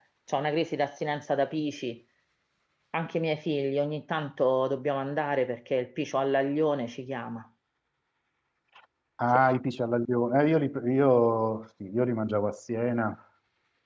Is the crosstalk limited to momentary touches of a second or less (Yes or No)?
Yes